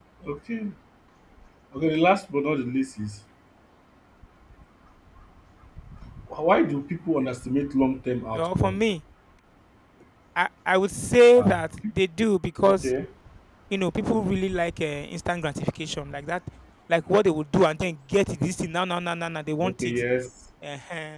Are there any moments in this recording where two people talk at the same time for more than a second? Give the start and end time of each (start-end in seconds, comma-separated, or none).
none